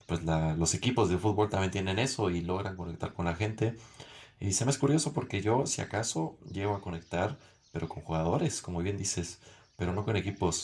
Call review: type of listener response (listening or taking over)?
listening